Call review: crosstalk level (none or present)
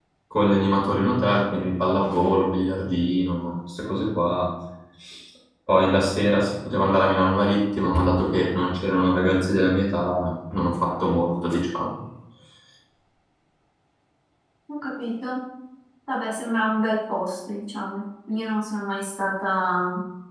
none